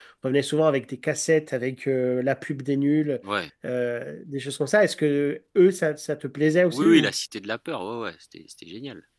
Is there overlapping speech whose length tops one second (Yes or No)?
No